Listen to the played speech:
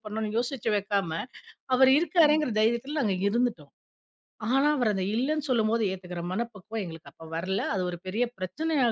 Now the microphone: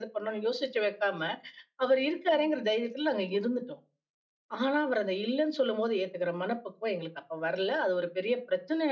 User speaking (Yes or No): No